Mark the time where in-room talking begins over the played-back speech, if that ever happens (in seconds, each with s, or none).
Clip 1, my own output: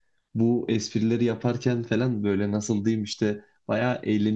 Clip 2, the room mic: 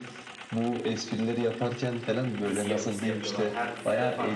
2.4 s